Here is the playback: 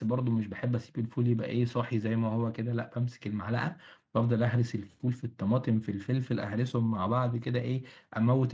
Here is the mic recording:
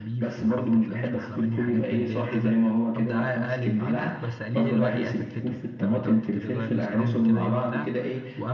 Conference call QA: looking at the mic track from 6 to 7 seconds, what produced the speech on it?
both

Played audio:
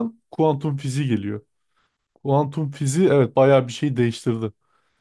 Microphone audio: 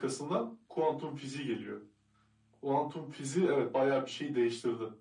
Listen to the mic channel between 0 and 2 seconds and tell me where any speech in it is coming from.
echo only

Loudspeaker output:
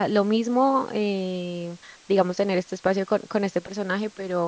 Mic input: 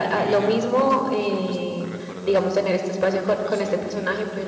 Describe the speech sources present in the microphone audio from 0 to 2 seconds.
both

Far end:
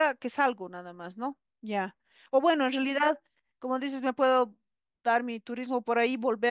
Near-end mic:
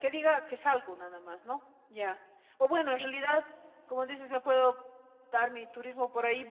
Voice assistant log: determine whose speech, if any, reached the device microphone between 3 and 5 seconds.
echo only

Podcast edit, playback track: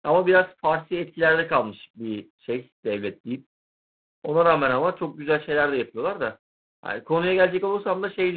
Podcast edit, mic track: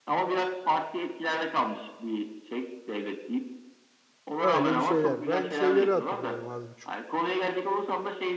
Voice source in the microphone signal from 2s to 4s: echo only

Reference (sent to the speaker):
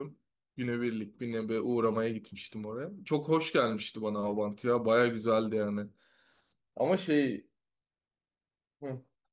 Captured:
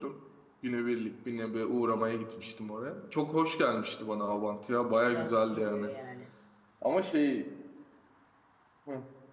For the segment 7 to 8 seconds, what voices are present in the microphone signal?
echo only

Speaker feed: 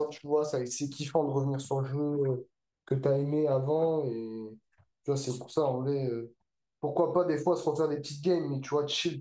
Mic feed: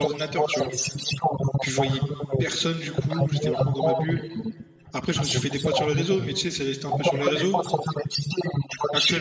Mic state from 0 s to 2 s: both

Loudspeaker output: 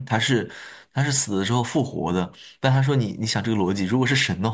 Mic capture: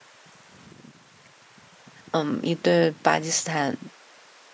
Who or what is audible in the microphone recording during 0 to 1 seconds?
neither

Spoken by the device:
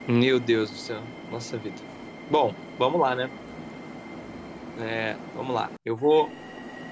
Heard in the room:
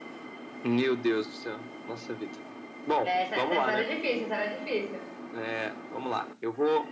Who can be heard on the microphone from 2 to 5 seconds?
both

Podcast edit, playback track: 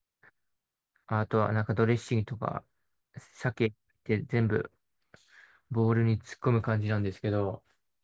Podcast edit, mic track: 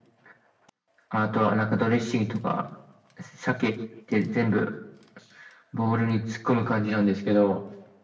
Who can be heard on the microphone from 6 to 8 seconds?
echo only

